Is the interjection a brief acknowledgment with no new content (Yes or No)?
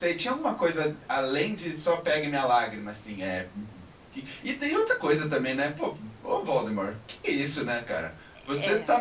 Yes